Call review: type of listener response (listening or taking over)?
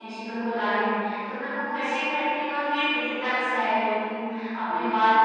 listening